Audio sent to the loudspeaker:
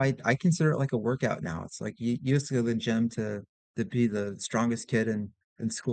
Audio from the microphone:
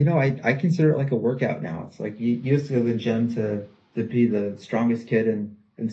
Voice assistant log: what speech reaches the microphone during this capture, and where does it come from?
echo only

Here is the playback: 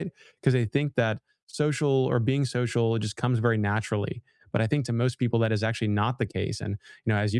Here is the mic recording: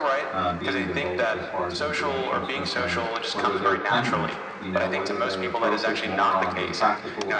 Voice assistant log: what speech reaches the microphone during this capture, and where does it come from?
both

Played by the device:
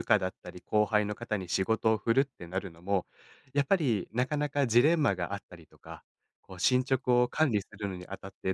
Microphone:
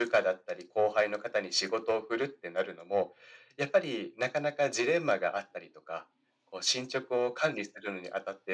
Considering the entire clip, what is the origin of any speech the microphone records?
echo only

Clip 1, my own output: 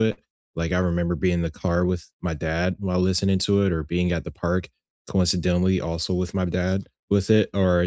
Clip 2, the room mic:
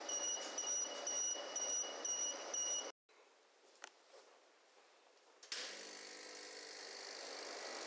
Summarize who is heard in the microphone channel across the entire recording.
neither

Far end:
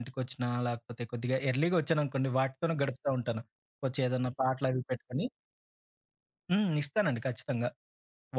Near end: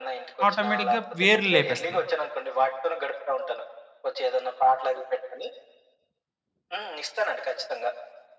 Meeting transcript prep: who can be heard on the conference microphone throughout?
both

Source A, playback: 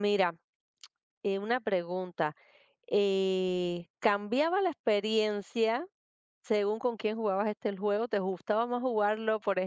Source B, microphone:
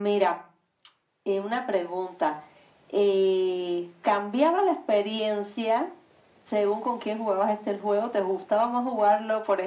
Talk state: echo only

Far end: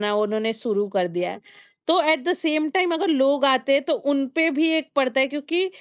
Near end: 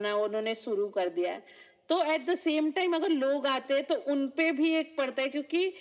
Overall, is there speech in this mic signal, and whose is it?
echo only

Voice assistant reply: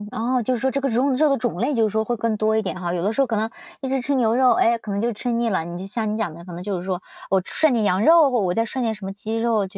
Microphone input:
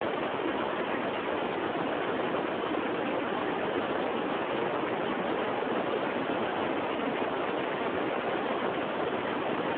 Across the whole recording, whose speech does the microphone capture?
neither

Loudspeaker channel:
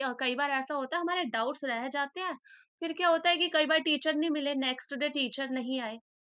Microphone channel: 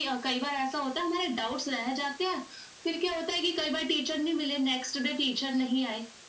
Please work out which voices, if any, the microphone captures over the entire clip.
echo only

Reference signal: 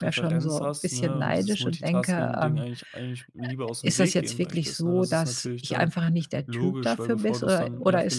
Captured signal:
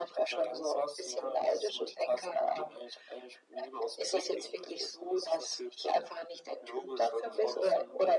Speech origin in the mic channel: echo only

